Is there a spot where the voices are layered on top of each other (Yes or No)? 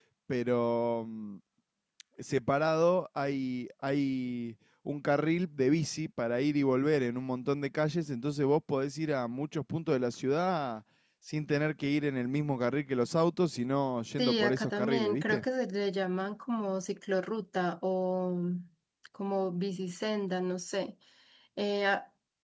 Yes